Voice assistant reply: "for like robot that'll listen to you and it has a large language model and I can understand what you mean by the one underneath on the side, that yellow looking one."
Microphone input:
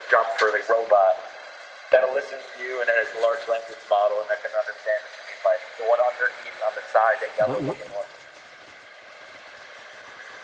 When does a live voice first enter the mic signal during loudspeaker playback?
7.4 s

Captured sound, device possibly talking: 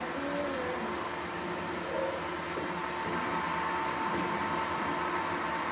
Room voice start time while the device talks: none

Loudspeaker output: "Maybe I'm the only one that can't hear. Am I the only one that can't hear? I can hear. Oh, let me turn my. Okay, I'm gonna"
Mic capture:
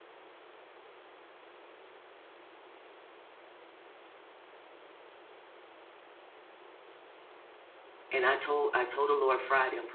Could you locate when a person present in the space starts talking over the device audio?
8.1 s

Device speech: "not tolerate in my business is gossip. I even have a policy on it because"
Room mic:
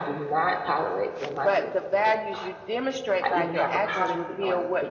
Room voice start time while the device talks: 1.4 s

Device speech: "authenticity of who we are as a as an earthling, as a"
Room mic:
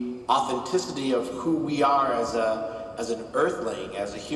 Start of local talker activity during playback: none

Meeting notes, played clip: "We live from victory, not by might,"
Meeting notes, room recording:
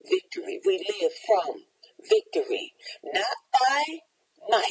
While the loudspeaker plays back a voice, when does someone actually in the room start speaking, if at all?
none

